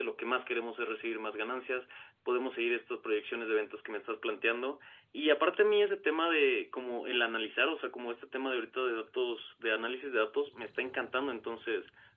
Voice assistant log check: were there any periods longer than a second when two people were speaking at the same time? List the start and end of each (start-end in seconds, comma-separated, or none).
none